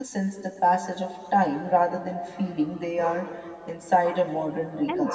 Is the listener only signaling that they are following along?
No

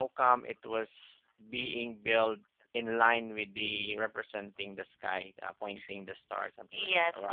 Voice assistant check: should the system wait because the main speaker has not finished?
No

